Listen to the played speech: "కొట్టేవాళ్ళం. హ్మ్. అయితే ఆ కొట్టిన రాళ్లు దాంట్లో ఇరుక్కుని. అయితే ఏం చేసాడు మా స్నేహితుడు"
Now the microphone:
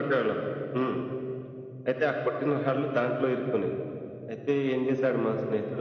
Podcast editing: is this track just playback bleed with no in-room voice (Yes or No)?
Yes